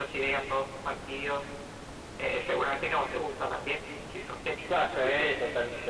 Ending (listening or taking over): taking over